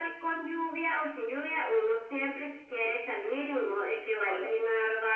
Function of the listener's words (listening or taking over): listening